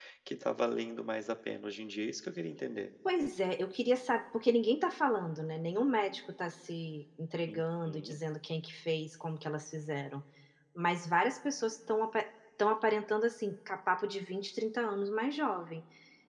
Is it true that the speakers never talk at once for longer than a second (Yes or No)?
Yes